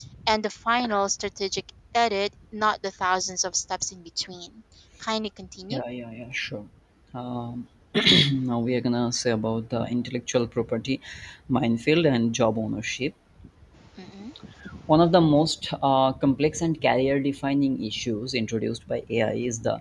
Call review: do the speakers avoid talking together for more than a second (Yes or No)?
Yes